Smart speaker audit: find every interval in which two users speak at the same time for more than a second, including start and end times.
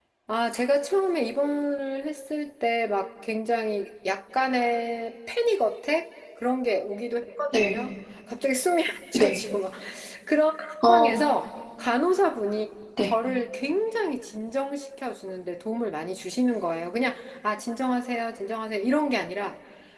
none

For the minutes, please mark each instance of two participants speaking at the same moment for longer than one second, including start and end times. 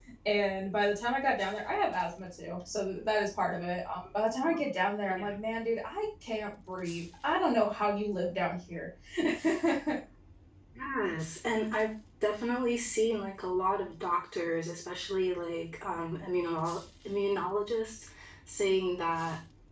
none

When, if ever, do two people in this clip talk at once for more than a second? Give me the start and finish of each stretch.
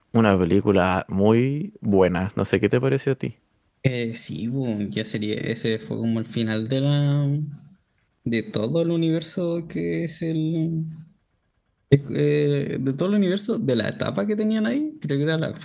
none

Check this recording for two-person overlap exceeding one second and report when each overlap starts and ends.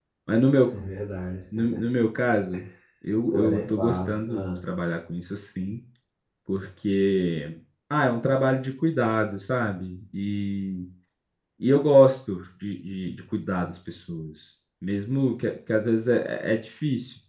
3.3-4.6

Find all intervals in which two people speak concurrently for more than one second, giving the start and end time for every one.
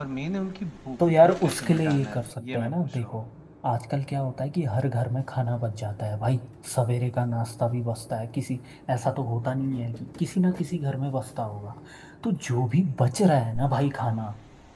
1.0-3.2

